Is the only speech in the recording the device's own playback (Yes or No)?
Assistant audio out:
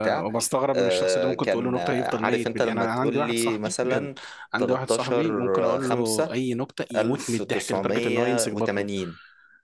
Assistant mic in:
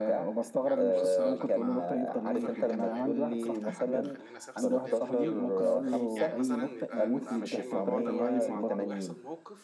No